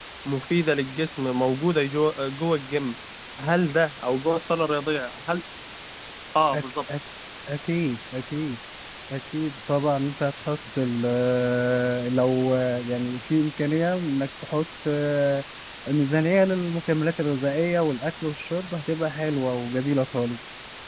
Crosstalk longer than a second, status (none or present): none